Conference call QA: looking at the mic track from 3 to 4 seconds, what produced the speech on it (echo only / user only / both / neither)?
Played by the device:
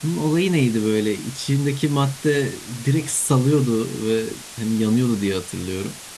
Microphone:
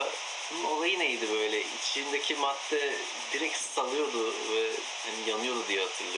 echo only